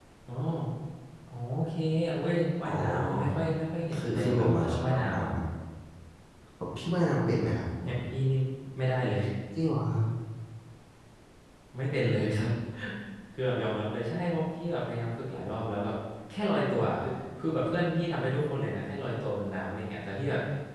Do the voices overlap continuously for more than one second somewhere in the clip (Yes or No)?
Yes